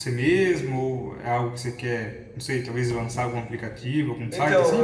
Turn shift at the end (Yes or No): Yes